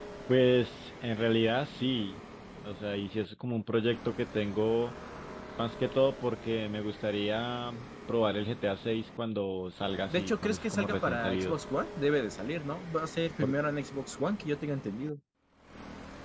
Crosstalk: present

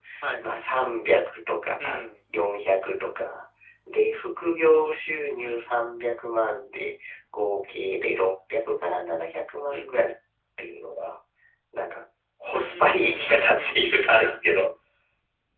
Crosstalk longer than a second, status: present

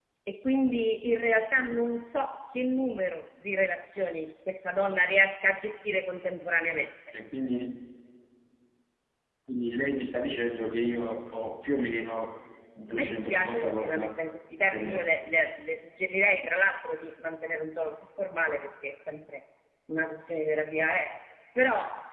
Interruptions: present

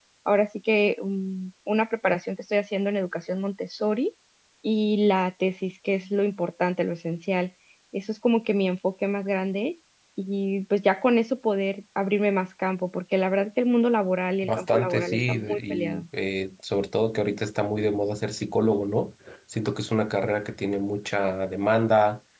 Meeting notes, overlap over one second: present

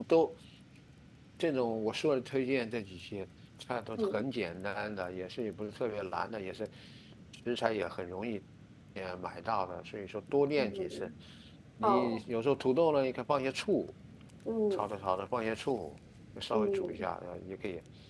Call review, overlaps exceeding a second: none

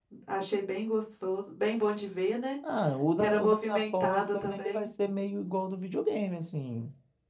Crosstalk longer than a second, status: present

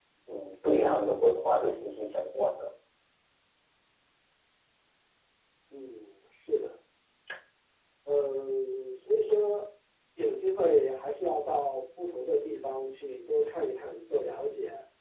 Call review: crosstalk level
none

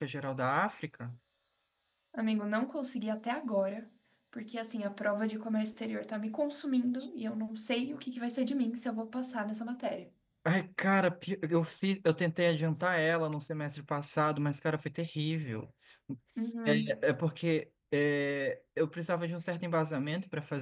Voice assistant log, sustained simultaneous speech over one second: none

